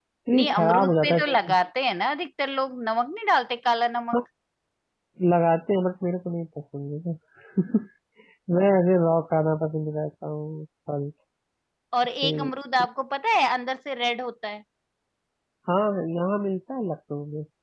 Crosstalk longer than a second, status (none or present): present